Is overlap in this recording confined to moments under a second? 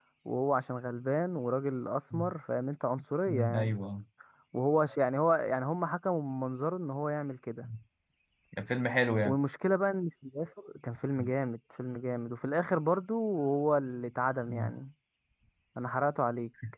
Yes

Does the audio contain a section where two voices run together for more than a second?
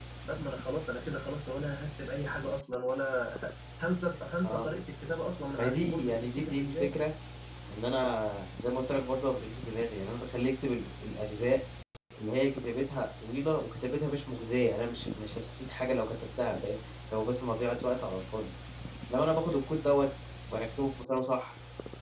Yes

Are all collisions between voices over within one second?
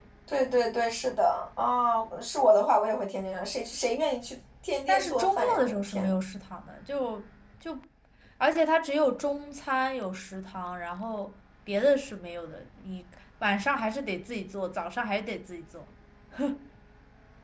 No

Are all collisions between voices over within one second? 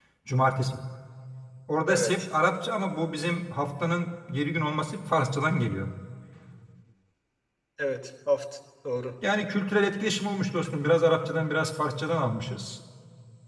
Yes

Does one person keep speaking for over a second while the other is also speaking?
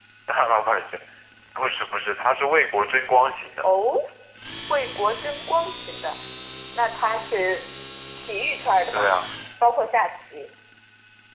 No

